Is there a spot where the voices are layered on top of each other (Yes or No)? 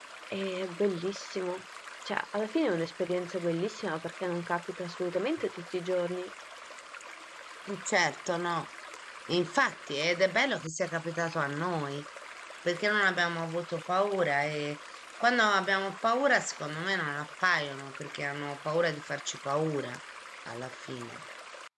No